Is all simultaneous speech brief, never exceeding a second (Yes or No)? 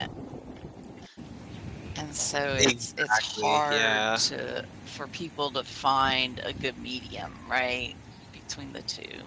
No